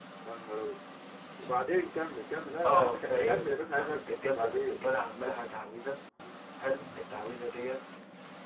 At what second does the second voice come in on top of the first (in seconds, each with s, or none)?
2.6 s